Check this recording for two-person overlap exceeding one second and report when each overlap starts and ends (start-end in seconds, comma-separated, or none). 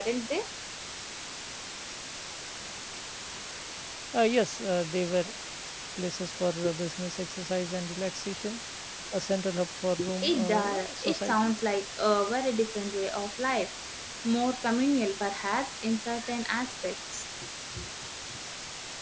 10.2-11.6